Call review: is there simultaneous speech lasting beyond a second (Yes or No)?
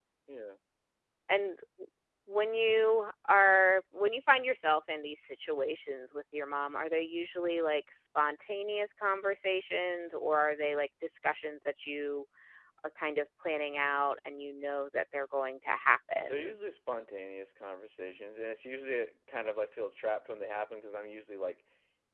No